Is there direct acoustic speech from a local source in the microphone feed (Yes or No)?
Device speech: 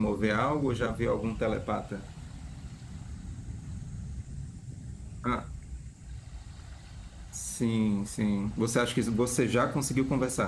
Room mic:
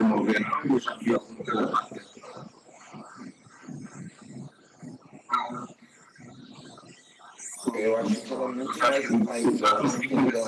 Yes